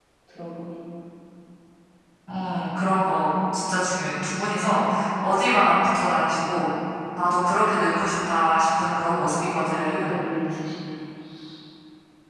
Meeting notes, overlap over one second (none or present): present